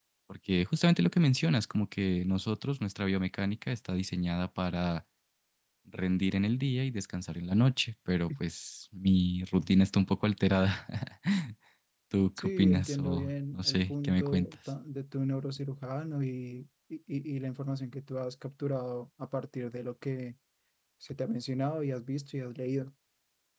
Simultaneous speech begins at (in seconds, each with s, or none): 12.4 s